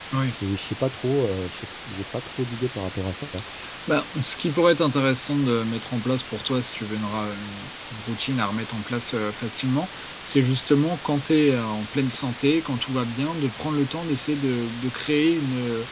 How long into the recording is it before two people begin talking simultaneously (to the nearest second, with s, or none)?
none